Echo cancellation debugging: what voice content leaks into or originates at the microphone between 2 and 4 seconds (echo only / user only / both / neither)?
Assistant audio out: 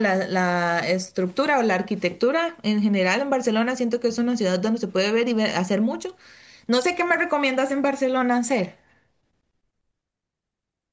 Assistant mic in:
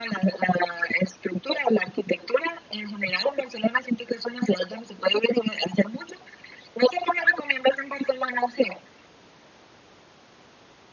echo only